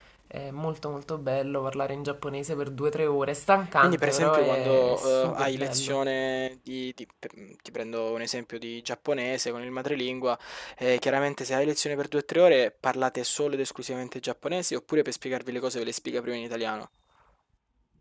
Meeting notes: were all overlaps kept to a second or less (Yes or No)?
No